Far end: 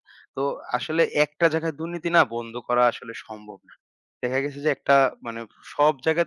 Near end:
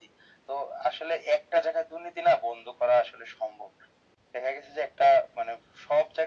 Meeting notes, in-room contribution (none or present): none